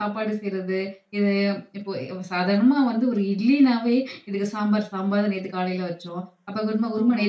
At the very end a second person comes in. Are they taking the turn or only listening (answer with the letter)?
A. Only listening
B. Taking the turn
A